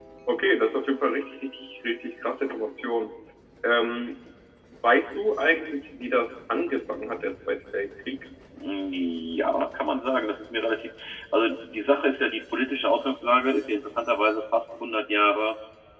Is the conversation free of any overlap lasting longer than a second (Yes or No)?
Yes